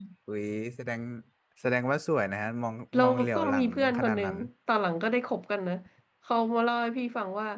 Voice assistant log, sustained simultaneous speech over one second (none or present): present